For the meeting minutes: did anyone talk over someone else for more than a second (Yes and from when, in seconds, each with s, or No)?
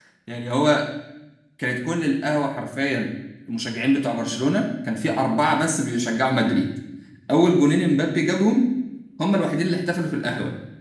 No